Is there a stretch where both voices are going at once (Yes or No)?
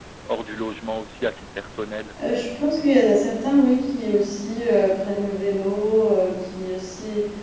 No